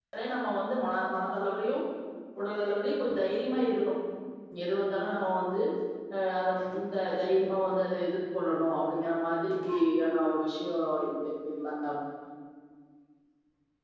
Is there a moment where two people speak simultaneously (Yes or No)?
No